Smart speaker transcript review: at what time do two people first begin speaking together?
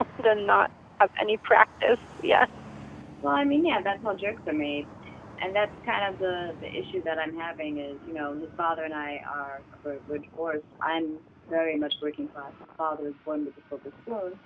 none

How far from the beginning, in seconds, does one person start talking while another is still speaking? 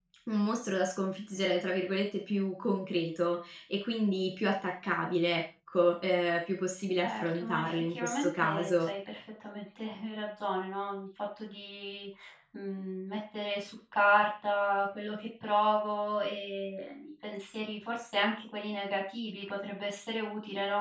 7.0 s

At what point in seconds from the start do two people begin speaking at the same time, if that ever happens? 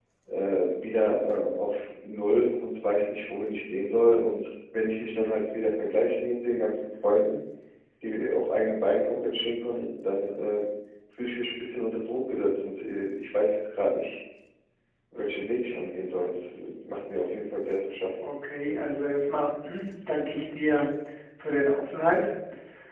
none

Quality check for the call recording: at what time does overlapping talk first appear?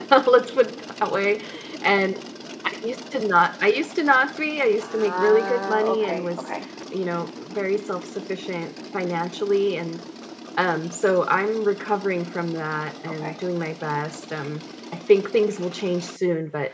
4.8 s

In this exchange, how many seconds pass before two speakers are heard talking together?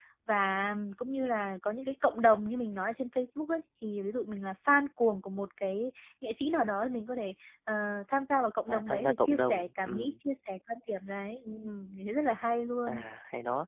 8.7 s

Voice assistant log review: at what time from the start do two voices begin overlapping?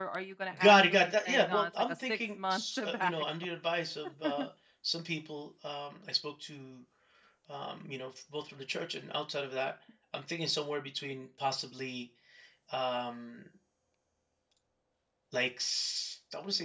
0.6 s

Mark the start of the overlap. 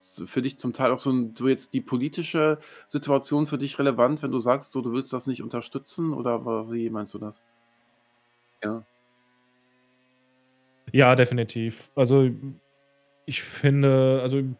none

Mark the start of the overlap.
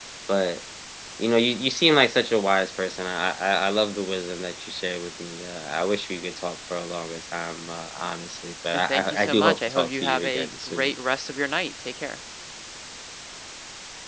8.7 s

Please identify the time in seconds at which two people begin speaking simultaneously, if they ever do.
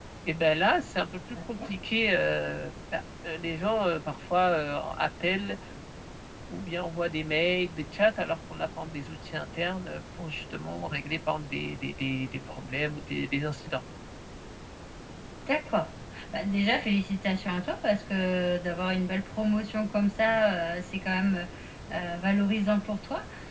none

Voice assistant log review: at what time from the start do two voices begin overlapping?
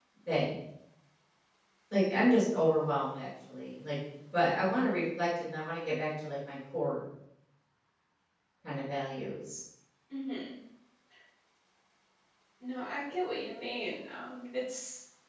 none

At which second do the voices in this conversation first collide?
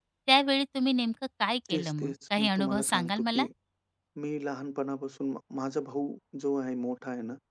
1.6 s

